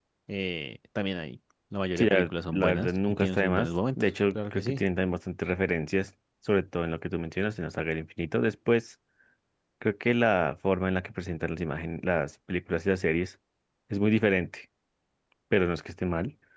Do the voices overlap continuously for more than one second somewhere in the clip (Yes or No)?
Yes